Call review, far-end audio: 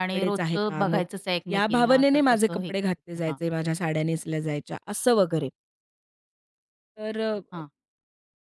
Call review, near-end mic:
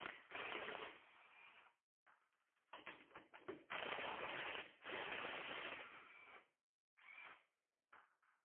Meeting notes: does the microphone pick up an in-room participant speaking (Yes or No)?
No